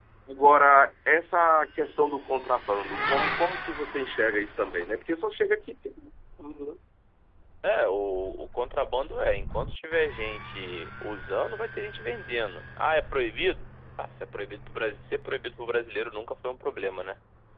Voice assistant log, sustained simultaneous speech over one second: none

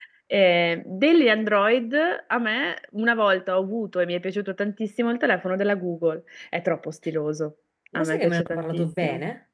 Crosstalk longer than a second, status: present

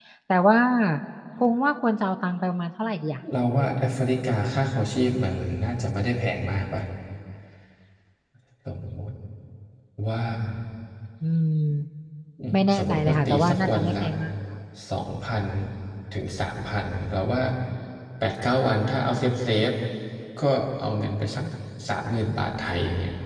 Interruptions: present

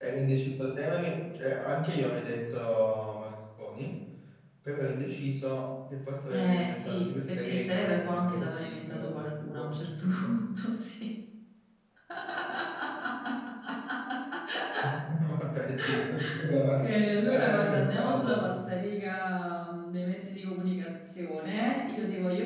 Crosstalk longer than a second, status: present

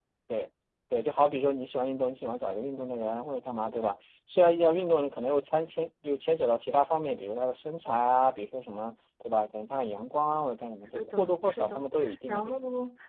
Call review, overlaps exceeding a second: present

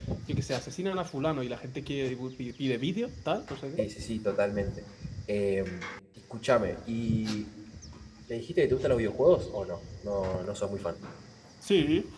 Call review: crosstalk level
none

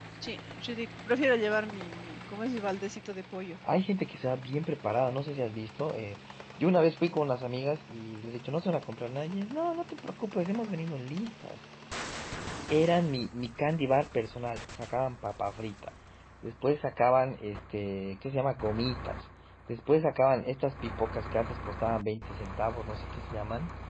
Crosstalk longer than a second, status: none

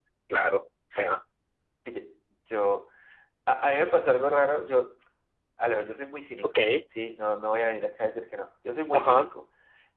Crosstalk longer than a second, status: none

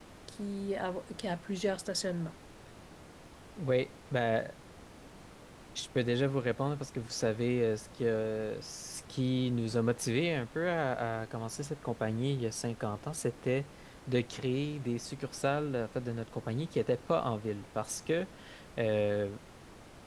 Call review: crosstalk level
none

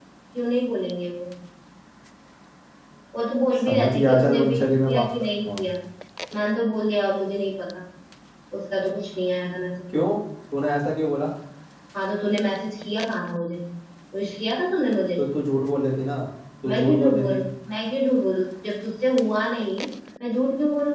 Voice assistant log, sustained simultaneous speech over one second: present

